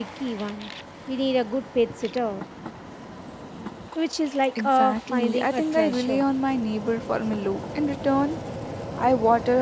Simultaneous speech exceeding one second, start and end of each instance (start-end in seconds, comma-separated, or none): 4.5-6.2